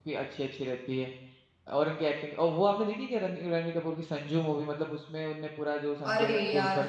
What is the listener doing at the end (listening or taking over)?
taking over